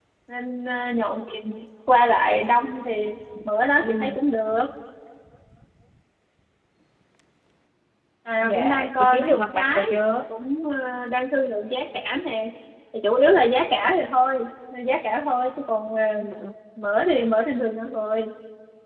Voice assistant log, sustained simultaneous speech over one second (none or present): present